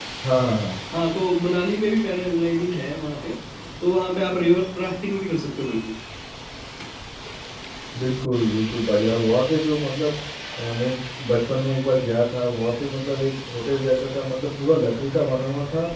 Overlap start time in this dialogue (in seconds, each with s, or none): none